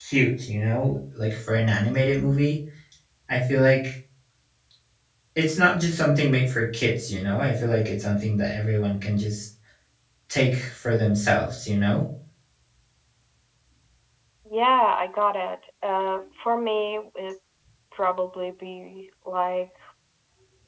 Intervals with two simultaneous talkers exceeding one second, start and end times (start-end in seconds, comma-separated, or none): none